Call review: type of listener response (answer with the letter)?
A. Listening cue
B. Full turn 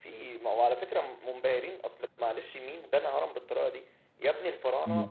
A